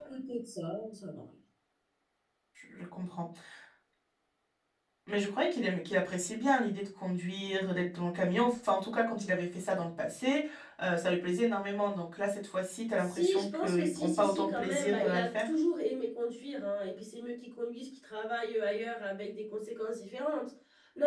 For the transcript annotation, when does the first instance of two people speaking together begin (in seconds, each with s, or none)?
13.0 s